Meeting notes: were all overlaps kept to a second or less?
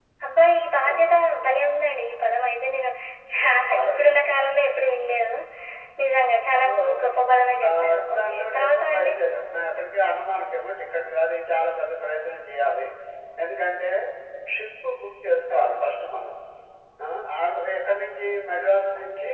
No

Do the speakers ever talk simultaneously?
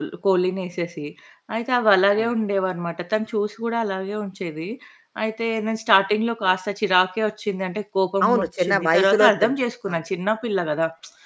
Yes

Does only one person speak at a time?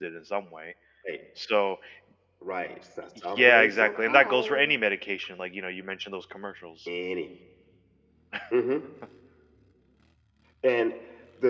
No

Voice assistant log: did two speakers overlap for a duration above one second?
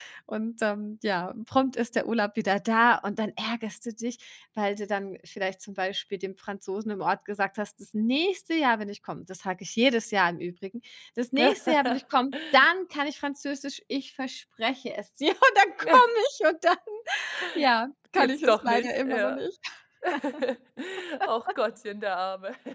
Yes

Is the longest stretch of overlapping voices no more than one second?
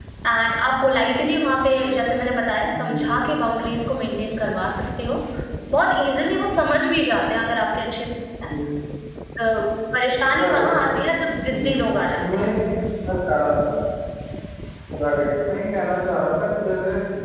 Yes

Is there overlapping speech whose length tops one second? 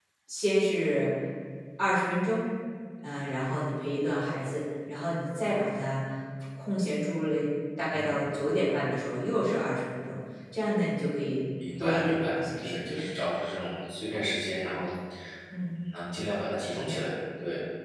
Yes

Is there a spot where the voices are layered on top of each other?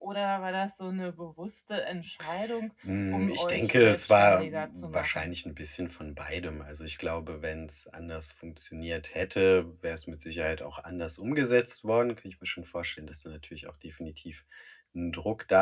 Yes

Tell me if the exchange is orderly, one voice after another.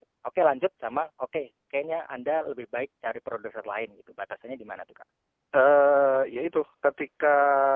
Yes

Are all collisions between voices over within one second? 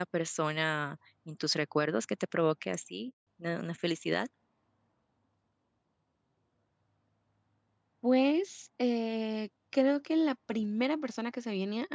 Yes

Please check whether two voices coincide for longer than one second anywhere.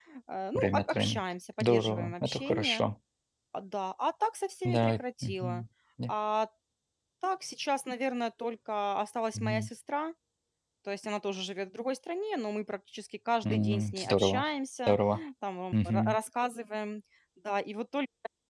Yes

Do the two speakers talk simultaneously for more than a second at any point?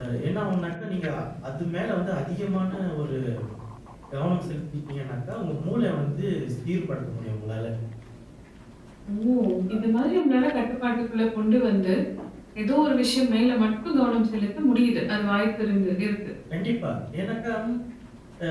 No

